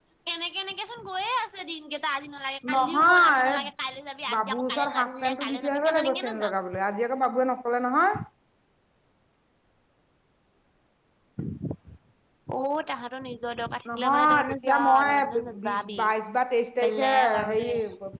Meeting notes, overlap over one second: present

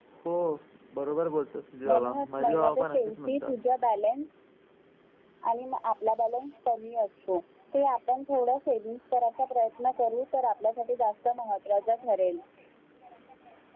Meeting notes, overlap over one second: present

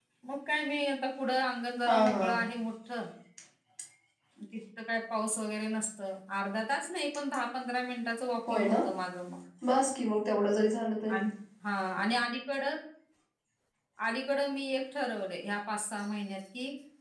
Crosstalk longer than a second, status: none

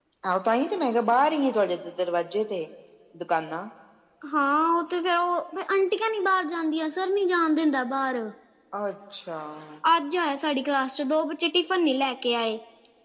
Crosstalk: none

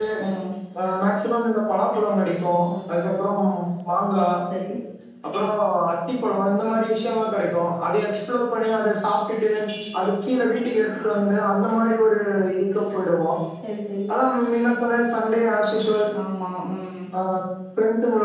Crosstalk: none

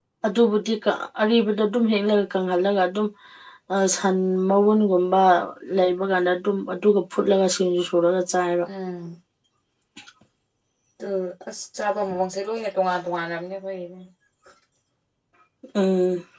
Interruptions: none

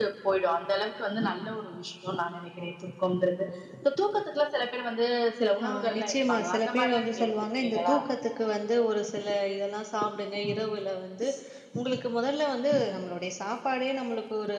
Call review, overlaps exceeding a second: present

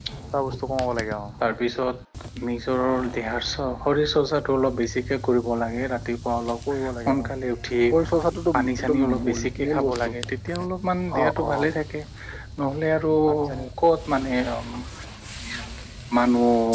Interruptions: present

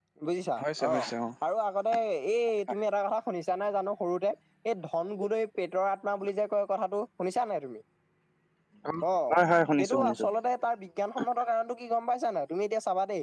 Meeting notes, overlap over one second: none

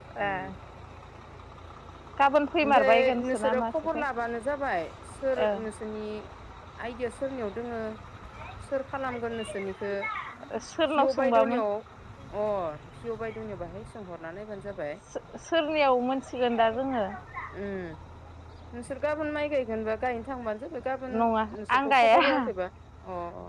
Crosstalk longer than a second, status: present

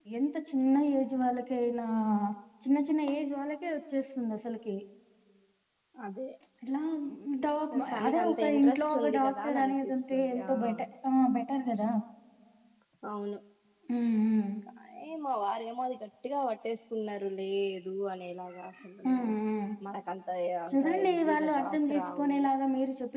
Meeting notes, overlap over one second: present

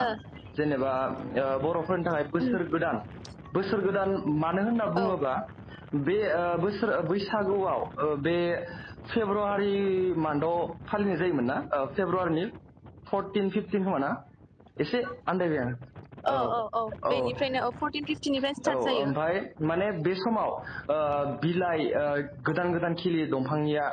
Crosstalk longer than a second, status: none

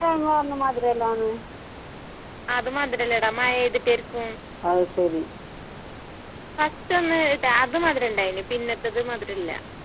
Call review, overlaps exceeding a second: none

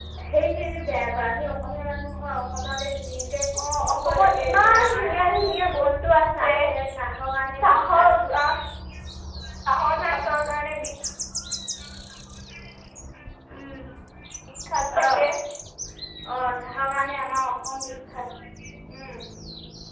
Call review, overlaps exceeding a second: present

